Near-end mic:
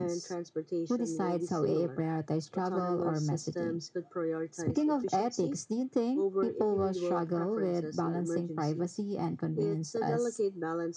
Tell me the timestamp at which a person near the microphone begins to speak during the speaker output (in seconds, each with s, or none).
none